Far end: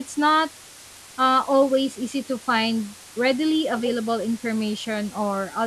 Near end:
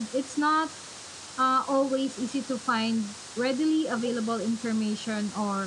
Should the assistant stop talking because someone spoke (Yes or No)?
No